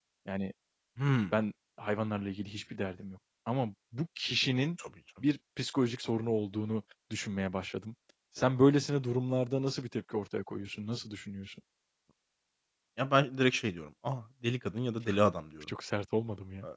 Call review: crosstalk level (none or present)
none